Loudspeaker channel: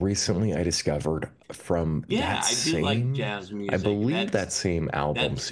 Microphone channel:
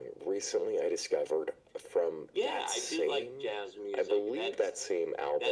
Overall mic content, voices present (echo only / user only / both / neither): echo only